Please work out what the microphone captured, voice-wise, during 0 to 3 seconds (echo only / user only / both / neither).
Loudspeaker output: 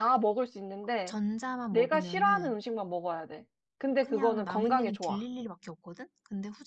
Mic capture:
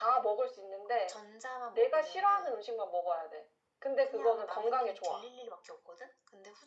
echo only